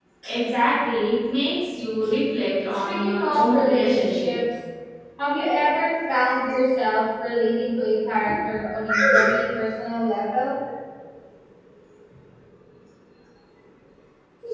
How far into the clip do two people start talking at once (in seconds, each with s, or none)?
2.9 s